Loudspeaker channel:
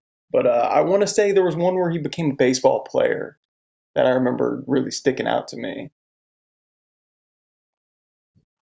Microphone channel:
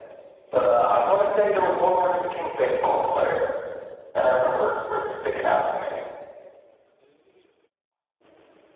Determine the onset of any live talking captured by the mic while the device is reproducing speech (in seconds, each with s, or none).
none